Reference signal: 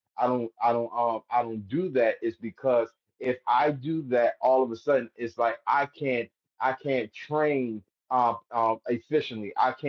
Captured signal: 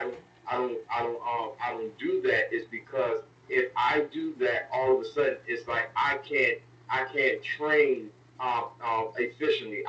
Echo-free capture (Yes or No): No